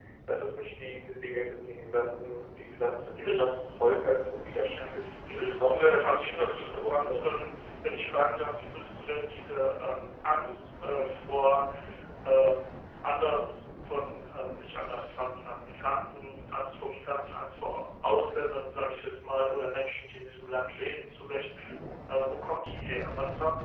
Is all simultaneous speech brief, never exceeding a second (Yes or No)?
No